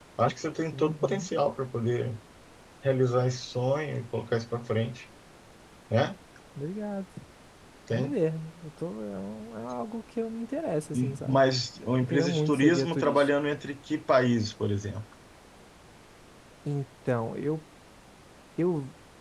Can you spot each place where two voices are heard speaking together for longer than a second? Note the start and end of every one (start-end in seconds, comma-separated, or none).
12.0-13.3